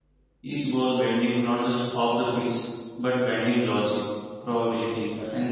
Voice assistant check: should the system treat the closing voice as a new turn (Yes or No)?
No